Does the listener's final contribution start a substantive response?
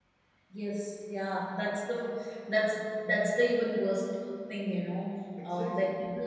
No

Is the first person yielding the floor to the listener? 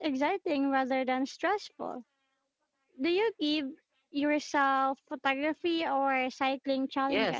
Yes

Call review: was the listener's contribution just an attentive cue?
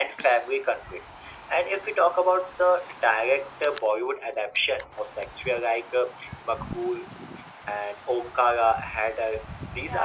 Yes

